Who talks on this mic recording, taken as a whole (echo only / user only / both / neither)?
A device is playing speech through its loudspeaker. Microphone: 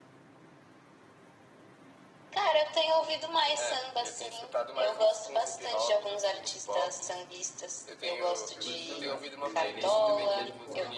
both